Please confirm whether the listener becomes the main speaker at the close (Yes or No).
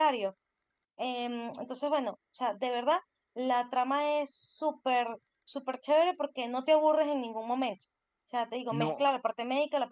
No